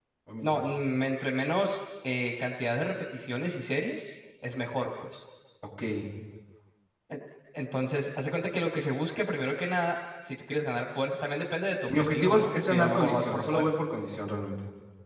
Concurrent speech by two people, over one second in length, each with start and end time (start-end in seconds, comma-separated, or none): 11.9-13.7